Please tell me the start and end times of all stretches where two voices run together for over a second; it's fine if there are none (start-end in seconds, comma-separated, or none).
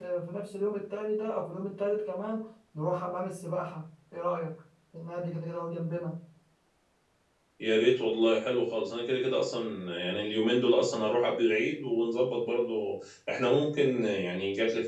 none